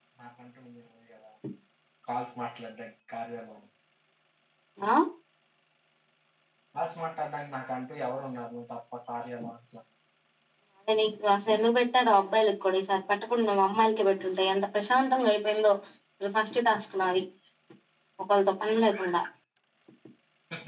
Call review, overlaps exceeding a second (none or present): none